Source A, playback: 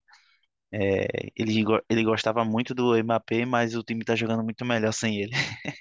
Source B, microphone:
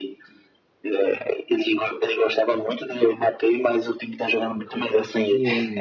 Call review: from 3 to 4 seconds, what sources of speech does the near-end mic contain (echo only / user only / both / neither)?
echo only